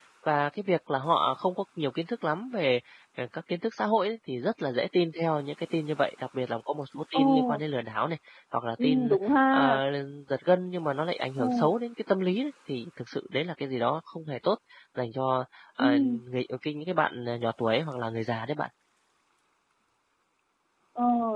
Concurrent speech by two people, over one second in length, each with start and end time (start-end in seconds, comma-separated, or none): none